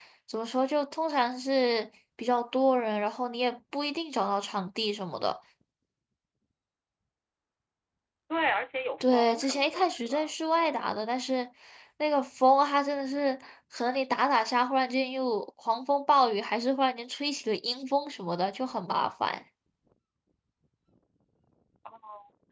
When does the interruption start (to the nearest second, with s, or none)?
9 s